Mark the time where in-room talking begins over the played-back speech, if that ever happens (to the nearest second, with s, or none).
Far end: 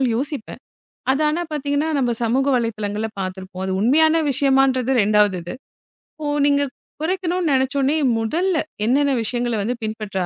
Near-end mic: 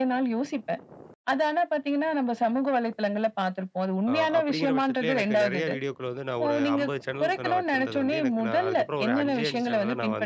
4 s